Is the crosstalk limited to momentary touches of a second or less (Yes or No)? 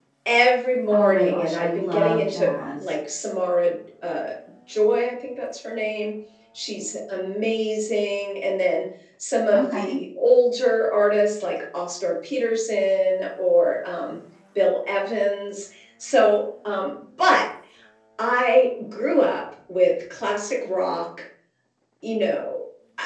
No